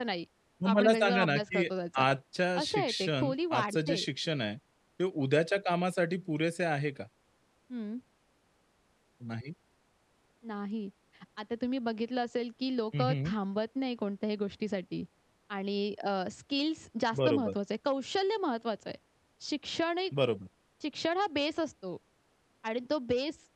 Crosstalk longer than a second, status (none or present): present